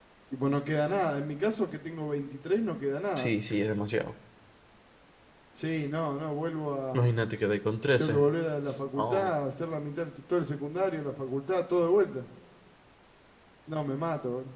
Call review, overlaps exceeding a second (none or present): none